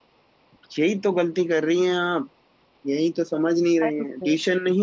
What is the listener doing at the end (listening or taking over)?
listening